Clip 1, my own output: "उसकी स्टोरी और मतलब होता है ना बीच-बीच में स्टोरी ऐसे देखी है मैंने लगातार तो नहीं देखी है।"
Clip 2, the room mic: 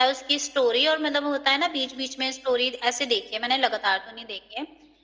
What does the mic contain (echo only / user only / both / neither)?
echo only